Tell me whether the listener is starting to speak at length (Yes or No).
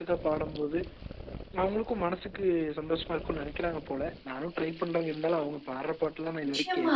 Yes